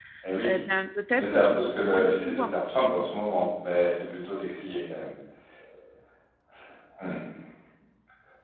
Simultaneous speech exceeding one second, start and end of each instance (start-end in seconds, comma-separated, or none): 1.2-2.9